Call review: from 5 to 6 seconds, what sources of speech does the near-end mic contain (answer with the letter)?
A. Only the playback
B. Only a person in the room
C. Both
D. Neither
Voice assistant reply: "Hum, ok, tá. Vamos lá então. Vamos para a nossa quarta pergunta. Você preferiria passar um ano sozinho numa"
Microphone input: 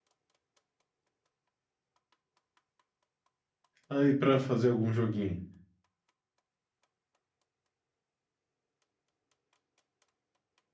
B